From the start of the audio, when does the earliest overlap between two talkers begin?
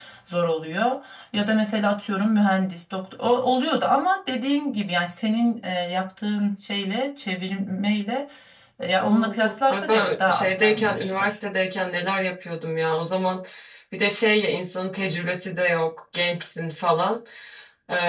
9.0 s

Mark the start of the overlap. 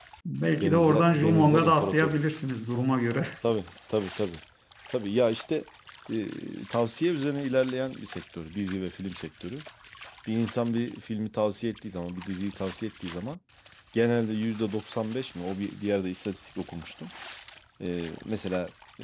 0.6 s

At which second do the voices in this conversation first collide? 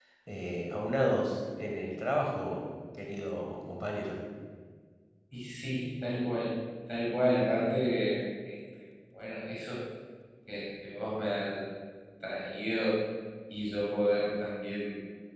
none

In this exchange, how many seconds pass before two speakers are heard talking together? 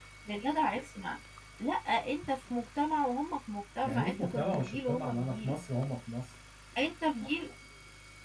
3.8 s

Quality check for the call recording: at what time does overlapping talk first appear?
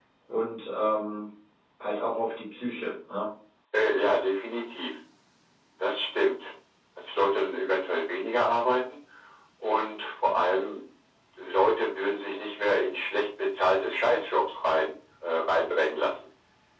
none

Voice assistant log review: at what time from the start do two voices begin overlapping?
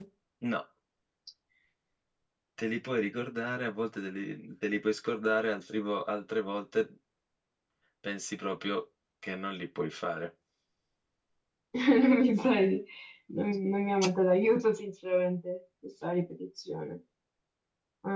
none

